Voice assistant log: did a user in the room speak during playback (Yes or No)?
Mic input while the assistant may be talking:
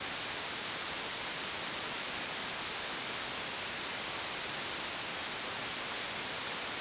No